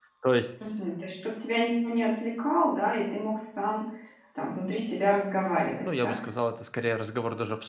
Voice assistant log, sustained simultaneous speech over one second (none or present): none